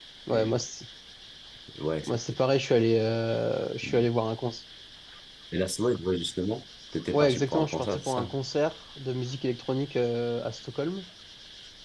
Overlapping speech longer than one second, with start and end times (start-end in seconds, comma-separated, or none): 7.1-8.3